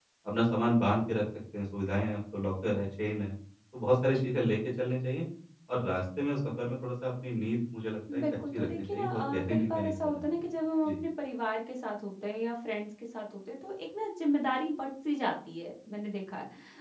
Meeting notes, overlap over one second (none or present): present